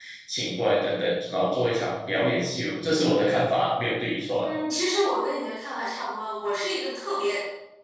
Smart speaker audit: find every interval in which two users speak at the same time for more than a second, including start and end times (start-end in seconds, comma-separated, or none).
none